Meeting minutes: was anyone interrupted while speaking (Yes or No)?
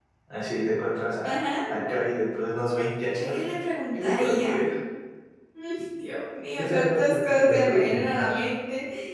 Yes